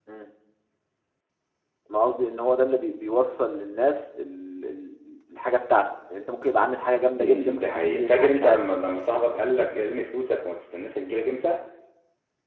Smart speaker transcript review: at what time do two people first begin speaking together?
7.2 s

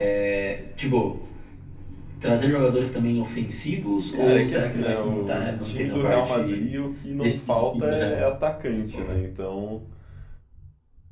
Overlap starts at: 4.1 s

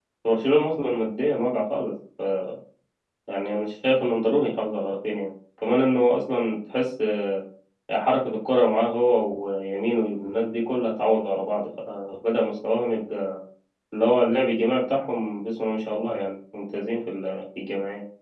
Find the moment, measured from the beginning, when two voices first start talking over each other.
none

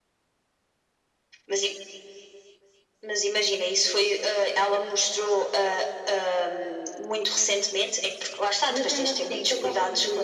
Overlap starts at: 8.7 s

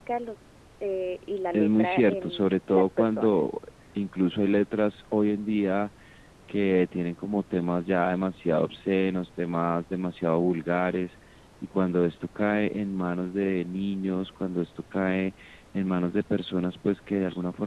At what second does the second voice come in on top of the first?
1.5 s

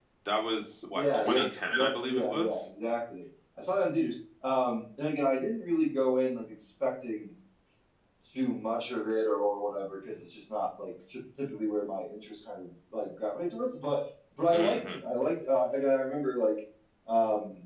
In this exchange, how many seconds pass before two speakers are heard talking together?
0.9 s

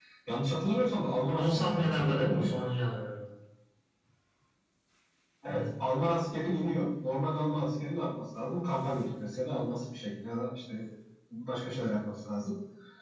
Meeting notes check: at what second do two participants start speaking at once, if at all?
1.4 s

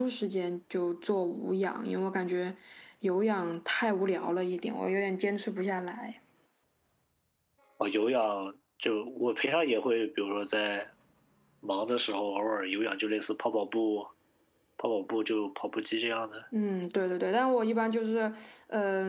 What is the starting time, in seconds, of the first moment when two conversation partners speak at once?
none

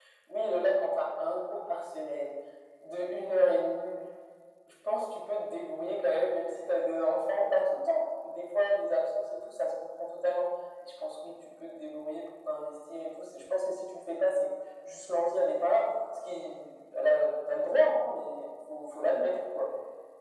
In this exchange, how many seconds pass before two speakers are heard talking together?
none

